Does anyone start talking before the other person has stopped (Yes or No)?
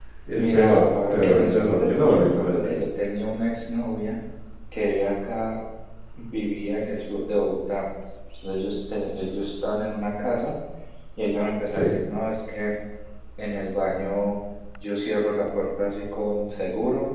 Yes